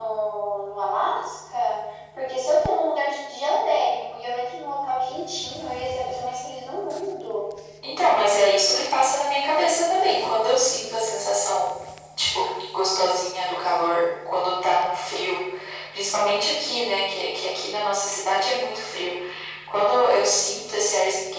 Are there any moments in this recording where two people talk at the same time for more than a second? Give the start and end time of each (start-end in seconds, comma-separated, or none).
none